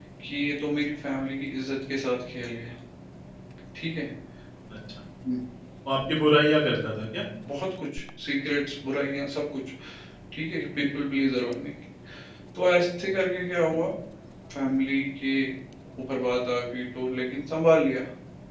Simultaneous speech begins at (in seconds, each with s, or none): none